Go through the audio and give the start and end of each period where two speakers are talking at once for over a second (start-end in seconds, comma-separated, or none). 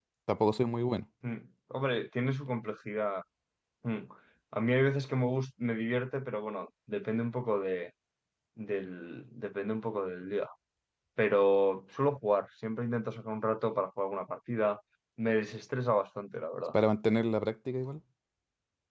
none